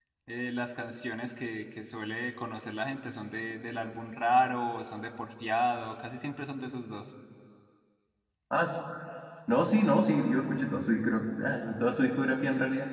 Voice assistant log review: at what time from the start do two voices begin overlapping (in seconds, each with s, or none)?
none